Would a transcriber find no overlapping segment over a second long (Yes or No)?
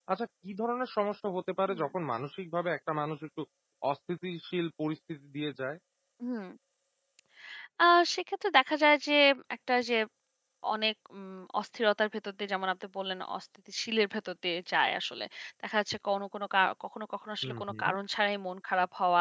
Yes